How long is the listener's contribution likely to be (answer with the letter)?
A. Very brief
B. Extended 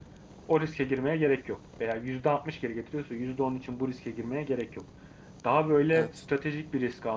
A